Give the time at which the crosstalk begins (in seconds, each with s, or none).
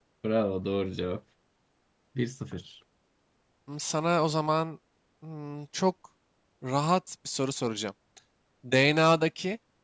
none